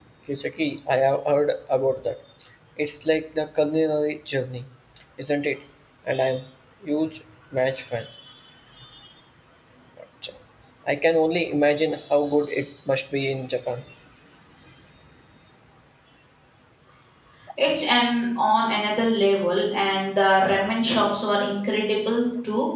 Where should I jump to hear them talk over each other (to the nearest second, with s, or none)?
none